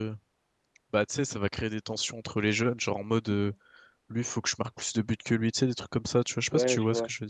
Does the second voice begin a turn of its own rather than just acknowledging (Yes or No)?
Yes